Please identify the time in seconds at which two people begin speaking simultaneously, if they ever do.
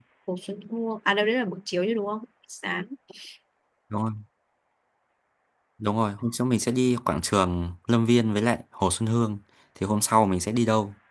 none

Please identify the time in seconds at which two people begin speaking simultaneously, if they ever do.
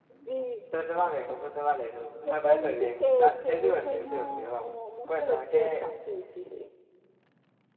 2.2 s

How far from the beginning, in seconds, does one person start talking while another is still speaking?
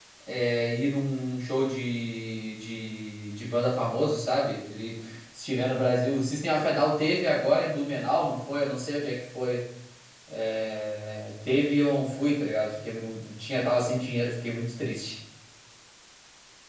none

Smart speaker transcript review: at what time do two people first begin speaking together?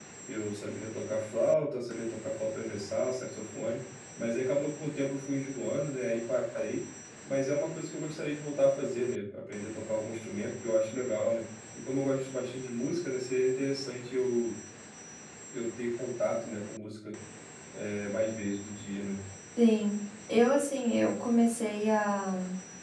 none

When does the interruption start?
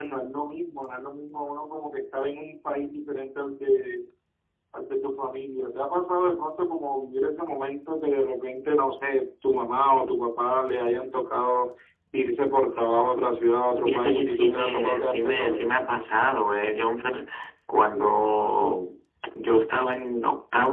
13.8 s

